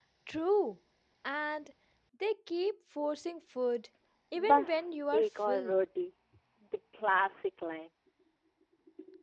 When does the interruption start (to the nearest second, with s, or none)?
4 s